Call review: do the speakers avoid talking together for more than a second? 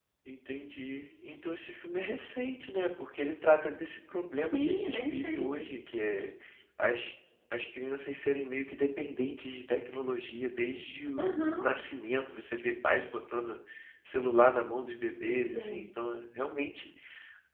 No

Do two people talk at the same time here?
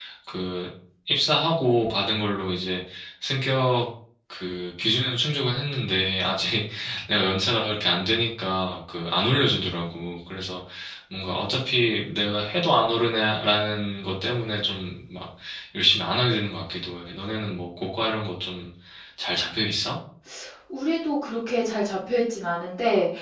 No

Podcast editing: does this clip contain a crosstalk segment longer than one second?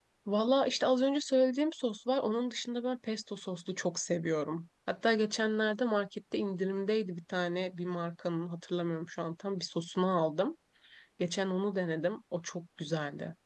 No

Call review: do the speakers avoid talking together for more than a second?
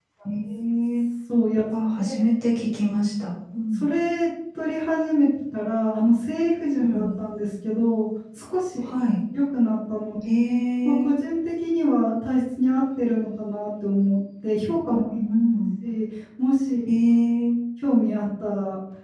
Yes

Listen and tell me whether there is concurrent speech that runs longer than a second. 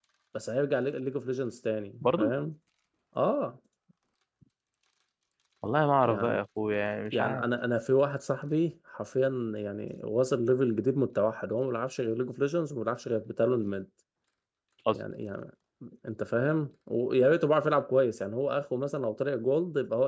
No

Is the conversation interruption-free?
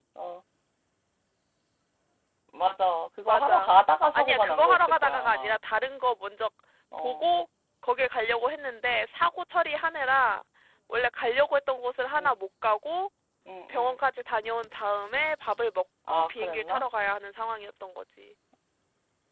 No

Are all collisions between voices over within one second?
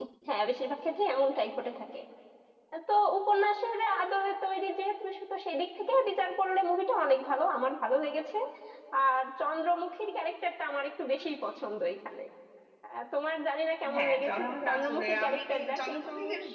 No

